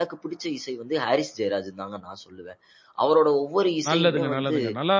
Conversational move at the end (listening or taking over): taking over